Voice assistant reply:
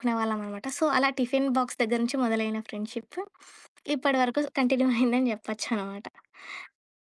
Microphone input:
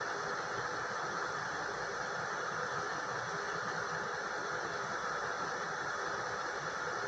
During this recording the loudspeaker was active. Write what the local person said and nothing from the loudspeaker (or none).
none